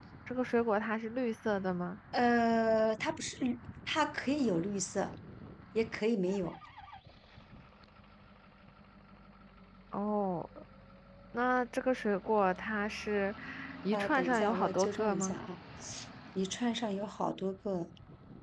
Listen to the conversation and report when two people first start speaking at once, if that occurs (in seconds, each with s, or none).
13.9 s